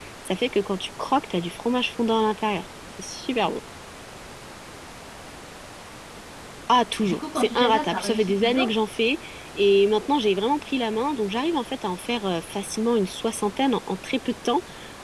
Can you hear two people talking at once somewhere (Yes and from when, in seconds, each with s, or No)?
Yes, from 7.0 s